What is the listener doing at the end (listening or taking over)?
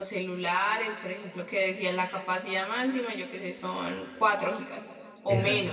taking over